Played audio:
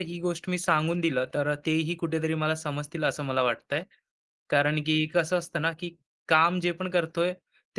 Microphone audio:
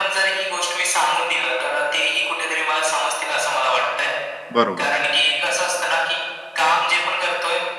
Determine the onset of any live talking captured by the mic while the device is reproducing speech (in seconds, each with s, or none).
4.6 s